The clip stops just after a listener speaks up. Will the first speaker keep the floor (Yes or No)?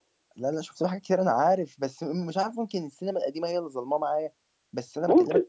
Yes